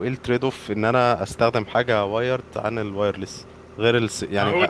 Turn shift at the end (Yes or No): No